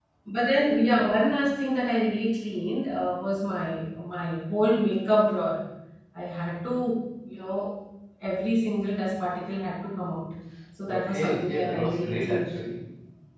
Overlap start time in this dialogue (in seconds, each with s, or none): 10.9 s